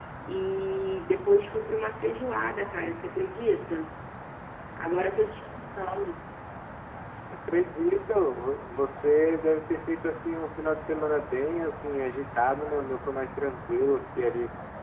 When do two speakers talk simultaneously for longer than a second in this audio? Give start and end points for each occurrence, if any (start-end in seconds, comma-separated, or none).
none